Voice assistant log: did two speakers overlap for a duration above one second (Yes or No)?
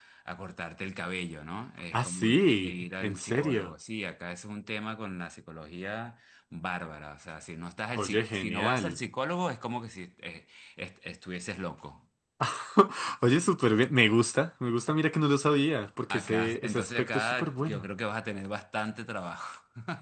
Yes